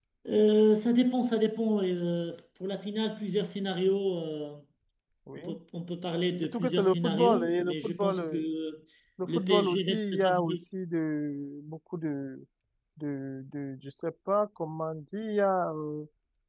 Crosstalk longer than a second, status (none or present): present